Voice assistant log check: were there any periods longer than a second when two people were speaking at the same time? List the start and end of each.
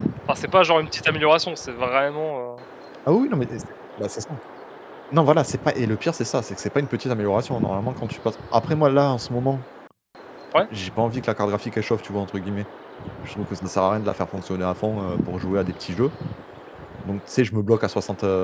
none

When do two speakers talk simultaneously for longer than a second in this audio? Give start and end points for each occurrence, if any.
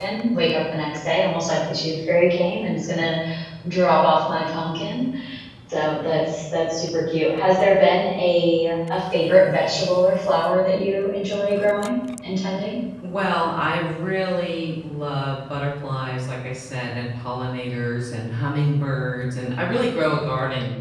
none

